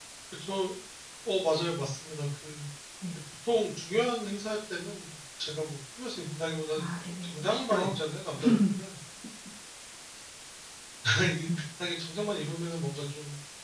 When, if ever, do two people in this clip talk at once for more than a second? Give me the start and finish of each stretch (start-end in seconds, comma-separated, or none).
6.8-8.0